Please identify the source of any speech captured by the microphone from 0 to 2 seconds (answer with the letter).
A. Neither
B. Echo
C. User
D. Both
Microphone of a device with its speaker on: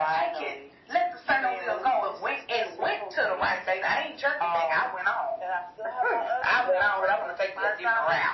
B